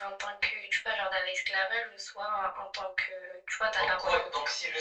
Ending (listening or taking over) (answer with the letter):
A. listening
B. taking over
B